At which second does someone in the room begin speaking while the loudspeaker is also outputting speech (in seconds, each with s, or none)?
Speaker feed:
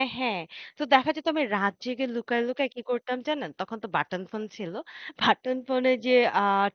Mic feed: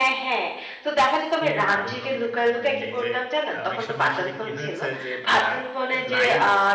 1.4 s